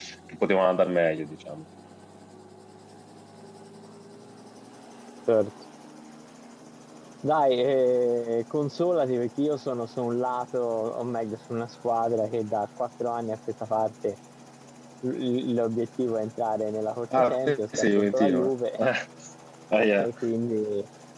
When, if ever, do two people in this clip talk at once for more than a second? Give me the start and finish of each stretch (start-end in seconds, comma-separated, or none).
17.2-18.5